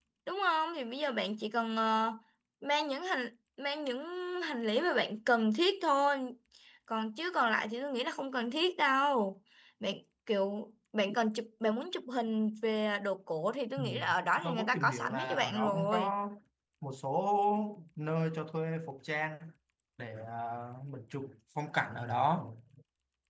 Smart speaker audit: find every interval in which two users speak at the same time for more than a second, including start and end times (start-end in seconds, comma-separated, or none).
14.4-16.2